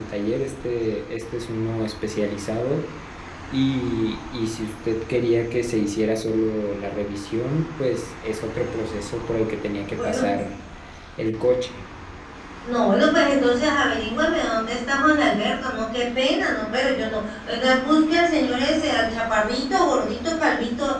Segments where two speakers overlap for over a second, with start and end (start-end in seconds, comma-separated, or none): none